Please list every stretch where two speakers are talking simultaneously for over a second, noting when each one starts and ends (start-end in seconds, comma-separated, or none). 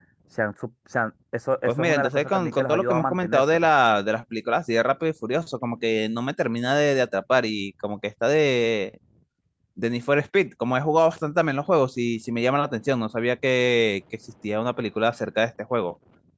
1.6-3.7